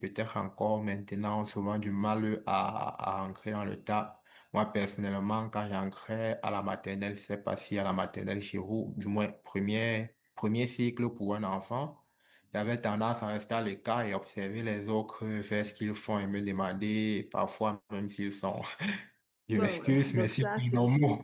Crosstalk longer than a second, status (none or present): present